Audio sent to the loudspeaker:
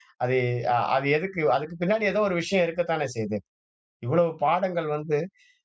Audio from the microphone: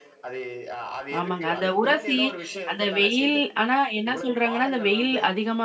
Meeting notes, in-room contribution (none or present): present